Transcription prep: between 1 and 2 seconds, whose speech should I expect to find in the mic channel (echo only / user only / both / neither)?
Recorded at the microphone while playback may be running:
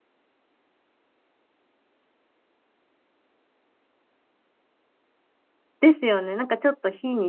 neither